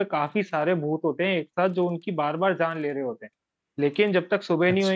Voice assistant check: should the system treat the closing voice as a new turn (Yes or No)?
No